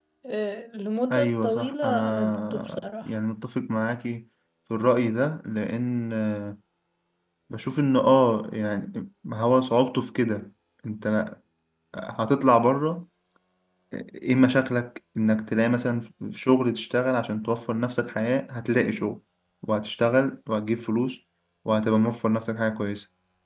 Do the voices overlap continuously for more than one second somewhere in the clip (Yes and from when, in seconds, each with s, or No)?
Yes, from 1.1 s